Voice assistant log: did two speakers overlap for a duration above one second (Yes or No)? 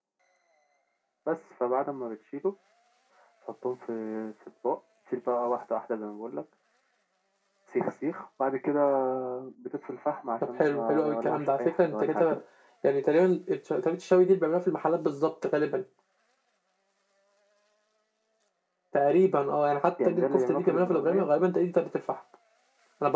Yes